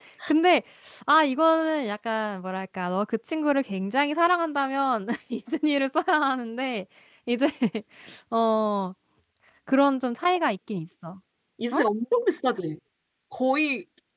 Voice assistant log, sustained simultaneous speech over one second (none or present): none